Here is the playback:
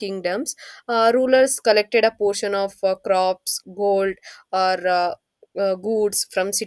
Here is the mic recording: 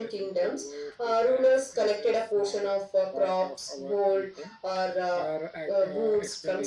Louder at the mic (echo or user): echo